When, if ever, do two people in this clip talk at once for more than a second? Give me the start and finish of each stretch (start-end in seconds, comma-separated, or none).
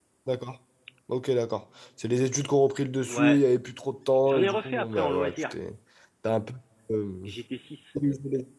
4.3-5.5